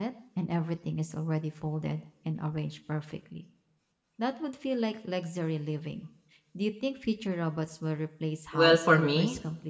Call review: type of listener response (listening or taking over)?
taking over